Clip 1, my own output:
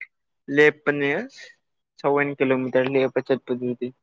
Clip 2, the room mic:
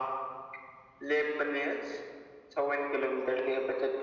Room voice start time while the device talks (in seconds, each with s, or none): none